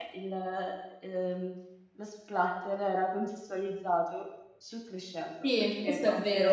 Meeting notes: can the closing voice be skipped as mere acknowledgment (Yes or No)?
No